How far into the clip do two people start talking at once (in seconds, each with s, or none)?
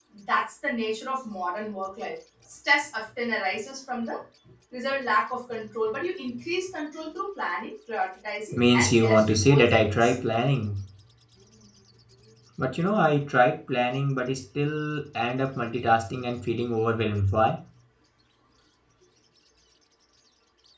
8.5 s